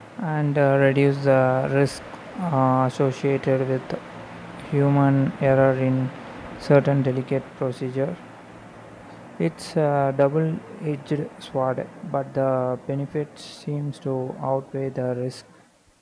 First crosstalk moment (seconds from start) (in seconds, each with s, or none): none